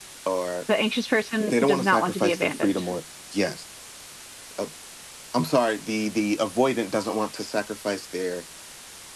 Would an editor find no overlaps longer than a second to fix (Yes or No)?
No